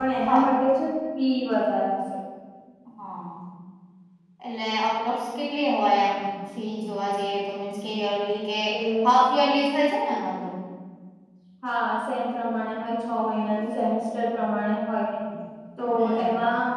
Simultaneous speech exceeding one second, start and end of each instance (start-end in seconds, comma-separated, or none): none